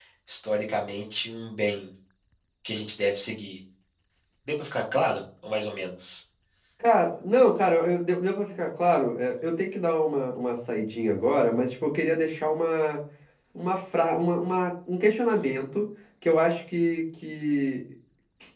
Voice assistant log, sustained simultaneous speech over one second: none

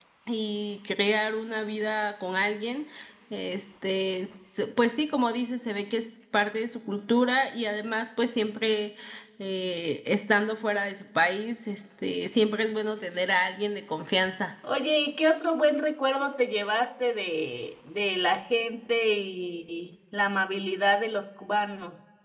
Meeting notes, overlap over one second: none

